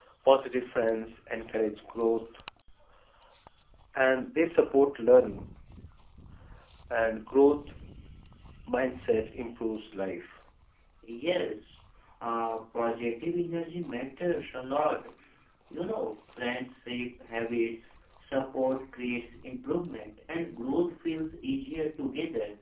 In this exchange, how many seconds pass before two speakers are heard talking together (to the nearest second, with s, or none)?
none